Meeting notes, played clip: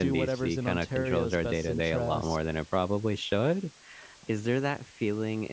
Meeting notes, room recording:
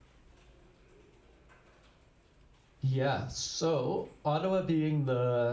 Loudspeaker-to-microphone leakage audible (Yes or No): No